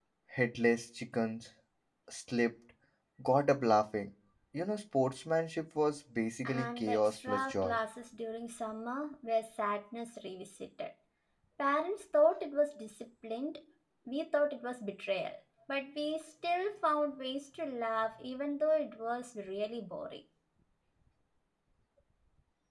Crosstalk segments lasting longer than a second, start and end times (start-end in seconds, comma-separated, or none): 6.4-7.8